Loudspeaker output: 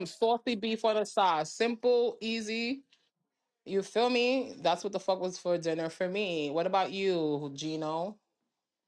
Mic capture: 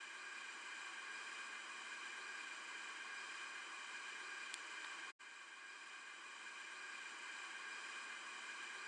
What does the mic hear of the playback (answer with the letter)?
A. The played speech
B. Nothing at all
B